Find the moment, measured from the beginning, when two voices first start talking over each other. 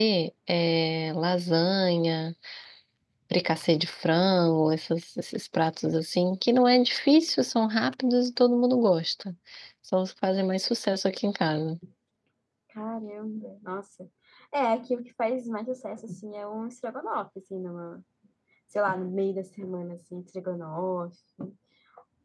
none

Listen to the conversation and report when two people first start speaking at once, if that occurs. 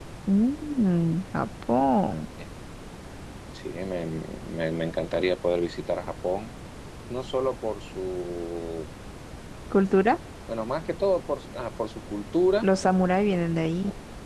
none

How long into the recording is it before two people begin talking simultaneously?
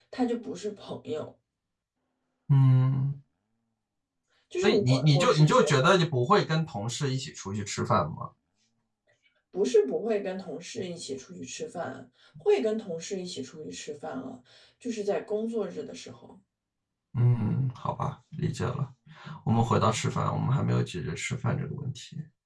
4.6 s

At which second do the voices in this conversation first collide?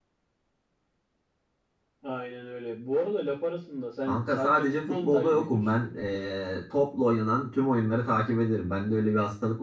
4.1 s

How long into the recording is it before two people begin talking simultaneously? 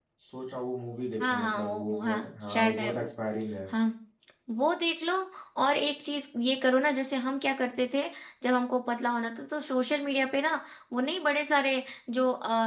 1.3 s

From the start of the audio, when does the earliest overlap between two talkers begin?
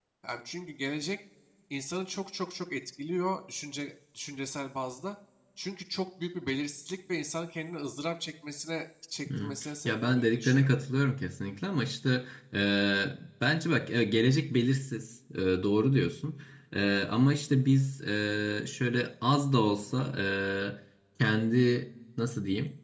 9.3 s

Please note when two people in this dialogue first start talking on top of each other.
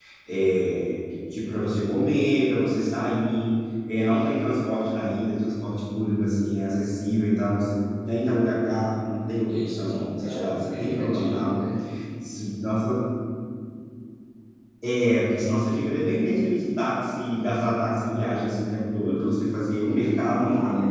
9.5 s

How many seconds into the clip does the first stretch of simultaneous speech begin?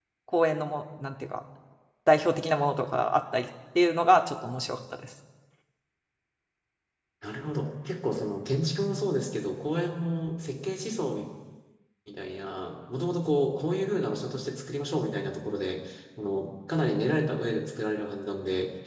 none

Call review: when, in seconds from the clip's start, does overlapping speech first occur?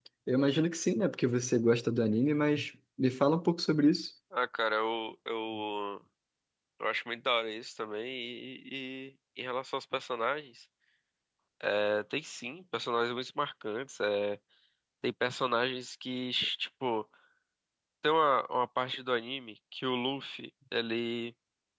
none

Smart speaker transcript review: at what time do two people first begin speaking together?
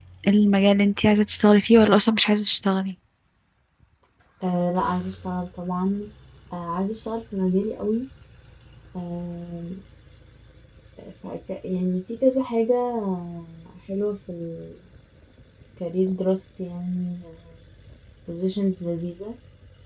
none

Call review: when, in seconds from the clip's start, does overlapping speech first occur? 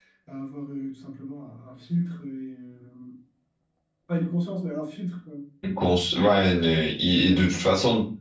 none

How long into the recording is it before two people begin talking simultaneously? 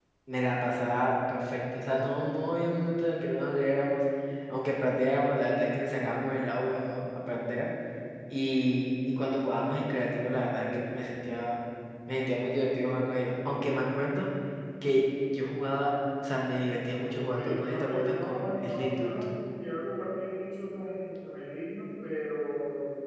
17.1 s

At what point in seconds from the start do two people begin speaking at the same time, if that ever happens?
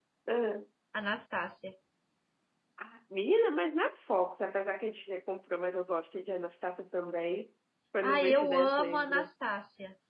8.0 s

